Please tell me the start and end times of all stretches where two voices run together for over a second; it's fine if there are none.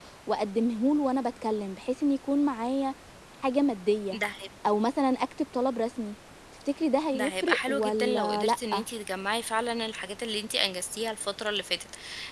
7.1-8.6

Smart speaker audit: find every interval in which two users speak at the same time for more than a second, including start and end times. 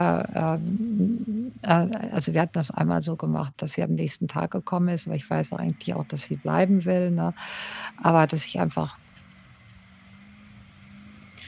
none

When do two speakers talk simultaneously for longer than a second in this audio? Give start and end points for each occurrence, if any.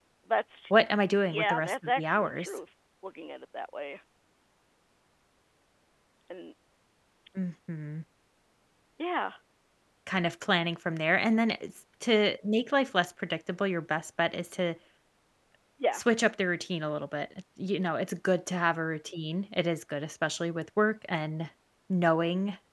1.2-2.6

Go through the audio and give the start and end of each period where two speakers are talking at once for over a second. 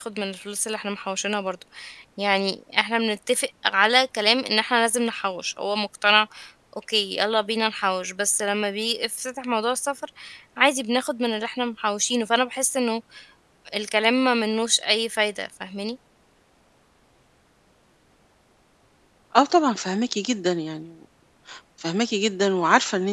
none

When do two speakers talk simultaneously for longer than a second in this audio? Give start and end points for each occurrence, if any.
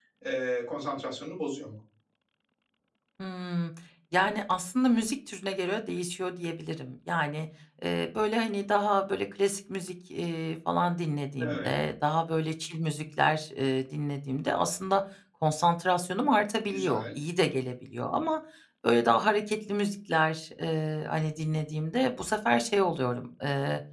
none

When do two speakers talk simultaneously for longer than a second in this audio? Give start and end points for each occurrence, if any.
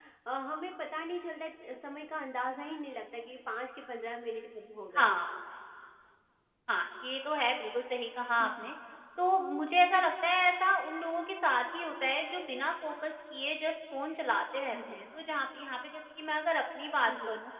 none

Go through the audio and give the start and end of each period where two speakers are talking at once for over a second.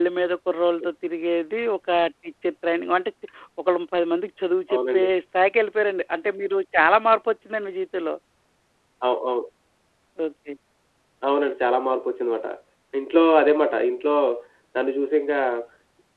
none

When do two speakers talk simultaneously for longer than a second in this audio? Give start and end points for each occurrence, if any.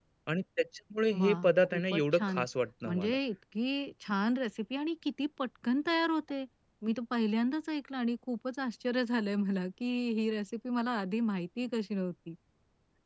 1.2-2.4

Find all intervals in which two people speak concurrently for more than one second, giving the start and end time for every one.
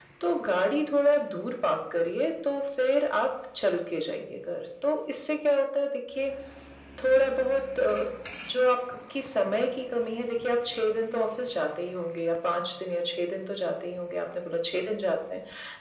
none

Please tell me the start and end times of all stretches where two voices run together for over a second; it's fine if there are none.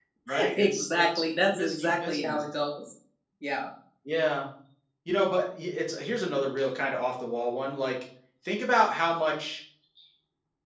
0.6-2.4

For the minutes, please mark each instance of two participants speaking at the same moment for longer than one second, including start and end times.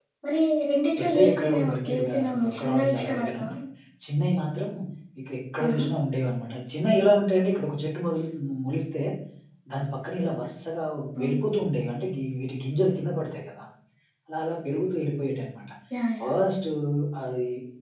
1.0-3.4

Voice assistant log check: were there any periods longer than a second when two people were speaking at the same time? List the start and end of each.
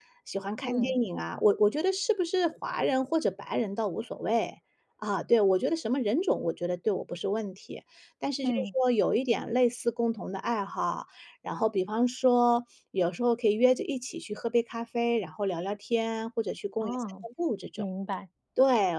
none

